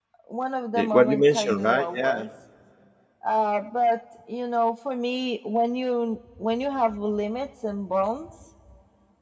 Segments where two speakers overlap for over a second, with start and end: 0.7-2.3

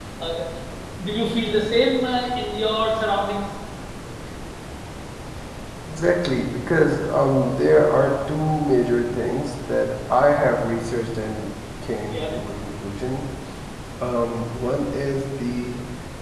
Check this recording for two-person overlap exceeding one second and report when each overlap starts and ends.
none

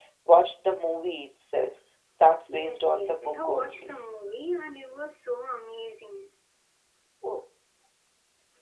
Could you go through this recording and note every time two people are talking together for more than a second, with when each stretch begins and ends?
2.5-3.9

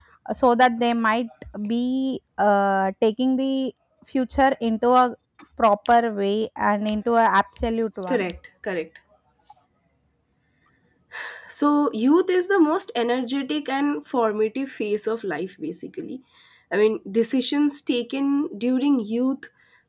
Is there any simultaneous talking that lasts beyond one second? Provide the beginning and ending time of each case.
none

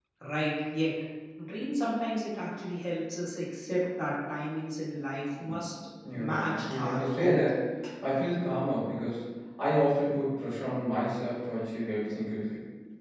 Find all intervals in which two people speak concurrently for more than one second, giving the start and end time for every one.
6.1-7.4

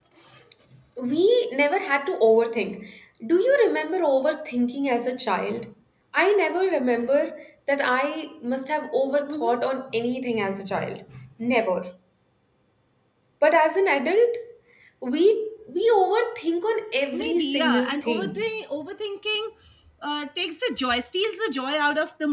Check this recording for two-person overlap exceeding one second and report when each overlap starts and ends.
17.1-18.5

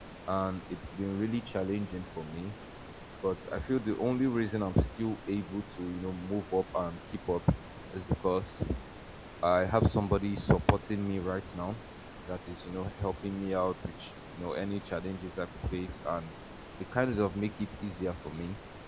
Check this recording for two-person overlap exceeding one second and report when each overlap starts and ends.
none

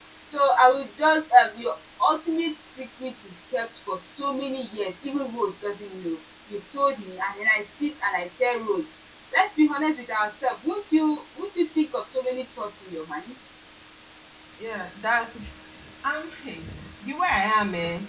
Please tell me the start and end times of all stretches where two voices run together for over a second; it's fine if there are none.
none

